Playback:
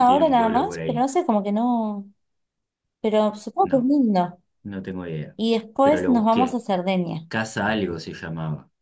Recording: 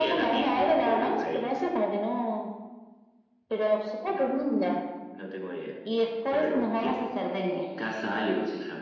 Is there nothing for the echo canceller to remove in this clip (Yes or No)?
No